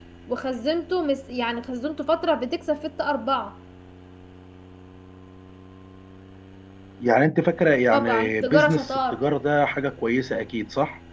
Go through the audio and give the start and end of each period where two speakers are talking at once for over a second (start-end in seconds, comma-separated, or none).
7.9-9.2